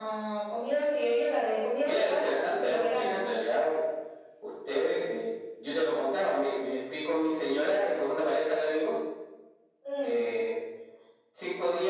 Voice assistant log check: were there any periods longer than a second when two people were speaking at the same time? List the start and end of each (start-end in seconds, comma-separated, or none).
1.8-3.3